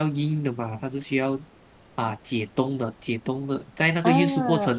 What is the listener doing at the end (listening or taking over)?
listening